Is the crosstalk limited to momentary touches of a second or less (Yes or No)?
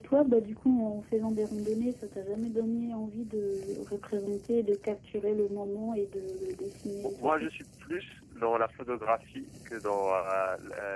Yes